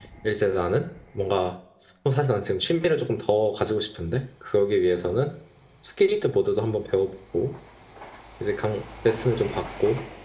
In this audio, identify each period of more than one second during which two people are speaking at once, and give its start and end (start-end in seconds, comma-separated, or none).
none